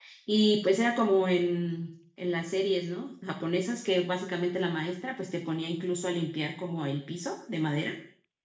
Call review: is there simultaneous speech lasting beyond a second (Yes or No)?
No